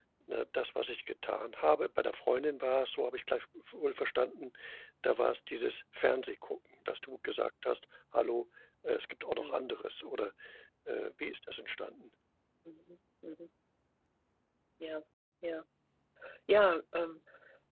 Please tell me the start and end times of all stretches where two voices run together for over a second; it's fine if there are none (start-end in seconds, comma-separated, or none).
none